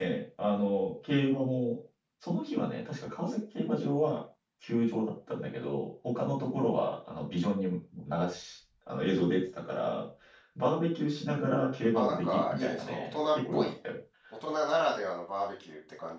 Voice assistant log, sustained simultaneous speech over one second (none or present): present